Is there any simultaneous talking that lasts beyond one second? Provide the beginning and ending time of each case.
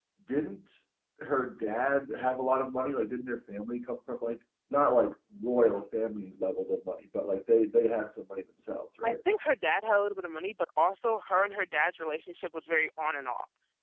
none

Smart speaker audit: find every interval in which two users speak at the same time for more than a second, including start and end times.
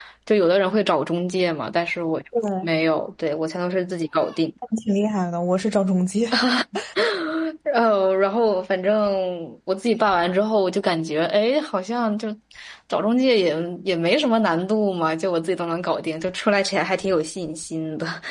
none

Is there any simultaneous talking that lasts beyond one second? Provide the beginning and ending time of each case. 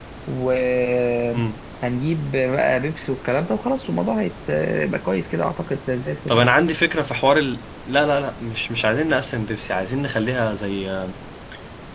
none

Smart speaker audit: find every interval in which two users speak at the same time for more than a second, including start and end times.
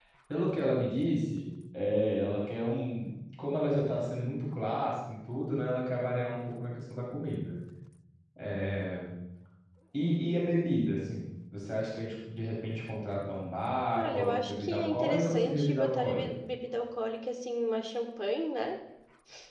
13.9-16.4

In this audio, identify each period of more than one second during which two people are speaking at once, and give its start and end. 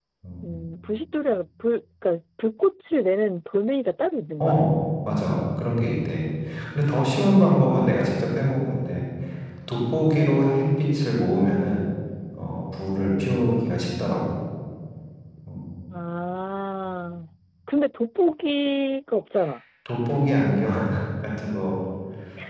none

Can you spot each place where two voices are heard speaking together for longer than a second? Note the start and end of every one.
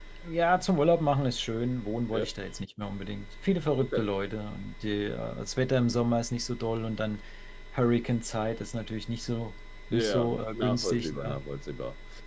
9.9-11.4

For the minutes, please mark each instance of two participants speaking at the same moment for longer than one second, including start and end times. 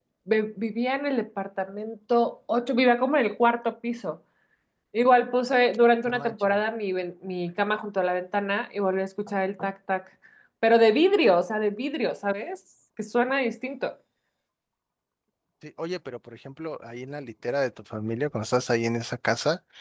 none

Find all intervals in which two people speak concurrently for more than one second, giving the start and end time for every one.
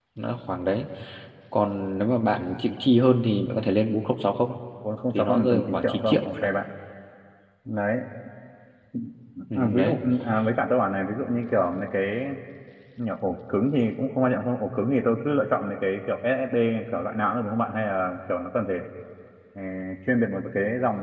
5.1-6.5

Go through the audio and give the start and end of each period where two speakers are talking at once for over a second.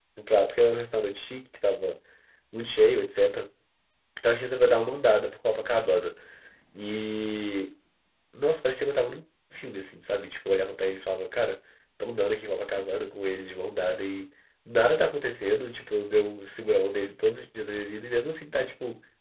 none

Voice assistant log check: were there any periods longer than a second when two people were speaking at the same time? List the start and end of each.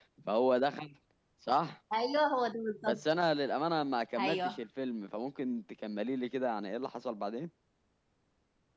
none

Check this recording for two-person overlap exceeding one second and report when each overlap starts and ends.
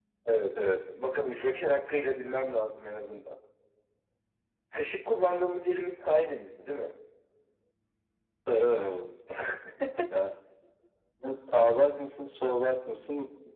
none

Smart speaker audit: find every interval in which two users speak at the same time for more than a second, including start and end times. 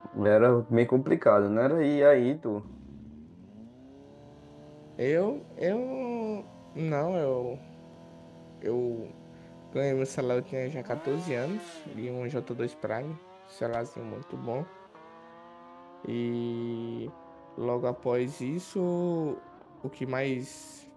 none

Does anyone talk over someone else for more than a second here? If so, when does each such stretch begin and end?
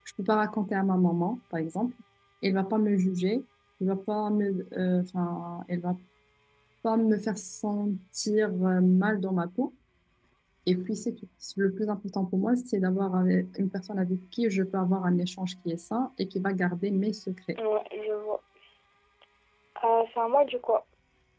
none

